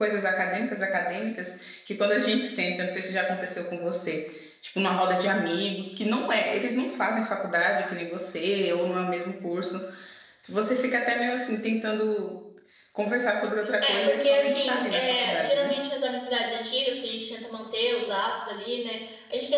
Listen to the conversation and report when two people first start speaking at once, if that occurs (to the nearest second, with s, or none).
14 s